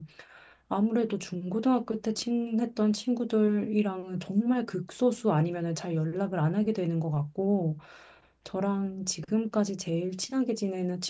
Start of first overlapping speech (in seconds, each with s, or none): none